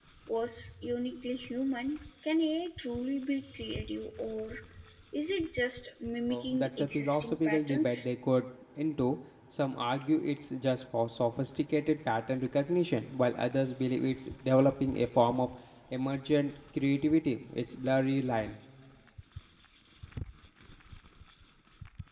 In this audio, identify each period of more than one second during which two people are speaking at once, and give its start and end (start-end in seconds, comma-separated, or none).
6.3-8.1